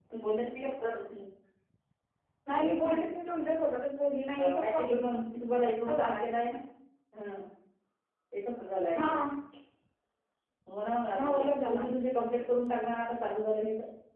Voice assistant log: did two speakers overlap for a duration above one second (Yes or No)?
No